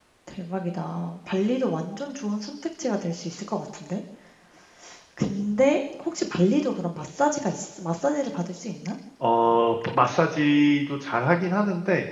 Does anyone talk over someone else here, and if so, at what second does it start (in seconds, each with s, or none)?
none